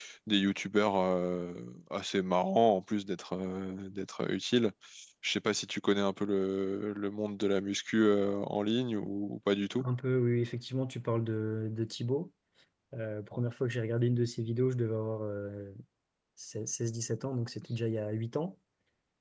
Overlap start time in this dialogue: none

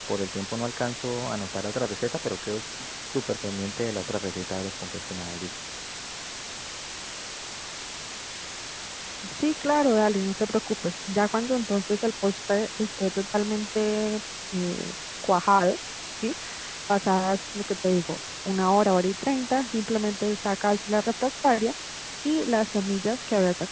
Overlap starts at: none

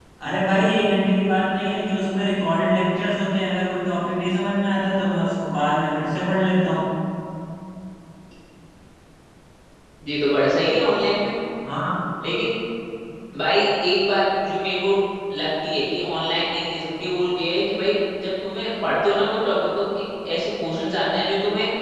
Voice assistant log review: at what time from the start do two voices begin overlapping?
none

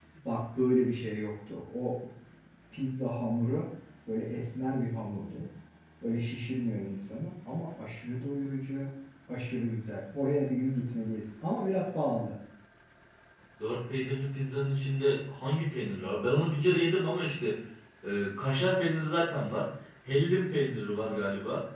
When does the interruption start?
none

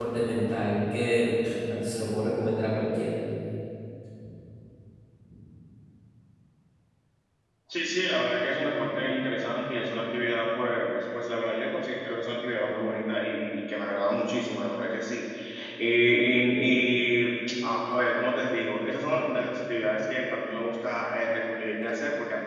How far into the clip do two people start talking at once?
none

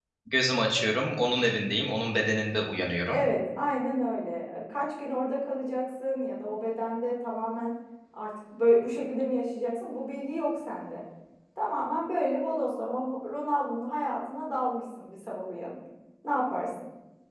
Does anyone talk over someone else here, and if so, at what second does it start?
none

